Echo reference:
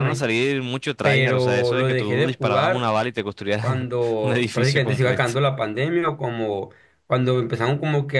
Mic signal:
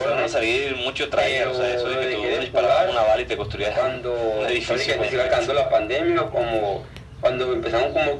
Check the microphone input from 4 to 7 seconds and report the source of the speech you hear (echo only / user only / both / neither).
echo only